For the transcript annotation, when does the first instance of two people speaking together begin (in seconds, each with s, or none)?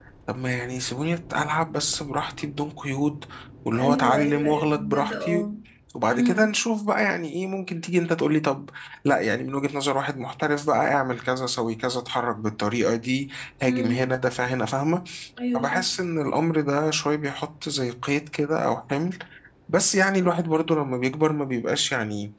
3.8 s